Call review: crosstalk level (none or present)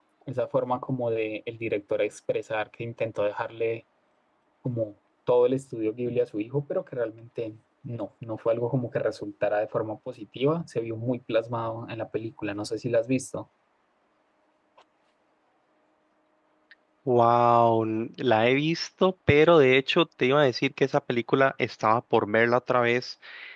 none